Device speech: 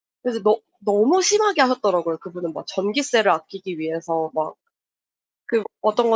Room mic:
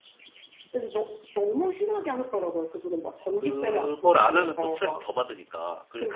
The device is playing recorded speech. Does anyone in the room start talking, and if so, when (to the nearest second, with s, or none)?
3 s